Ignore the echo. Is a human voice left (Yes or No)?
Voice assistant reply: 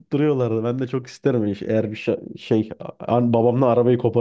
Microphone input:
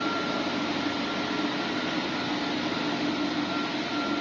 No